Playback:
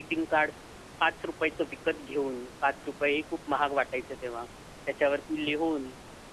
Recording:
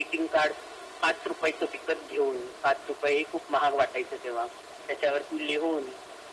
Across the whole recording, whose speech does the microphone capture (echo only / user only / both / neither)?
echo only